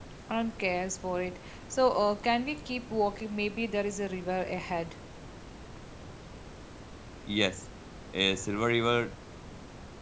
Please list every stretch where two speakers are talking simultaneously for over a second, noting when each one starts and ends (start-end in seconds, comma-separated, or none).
none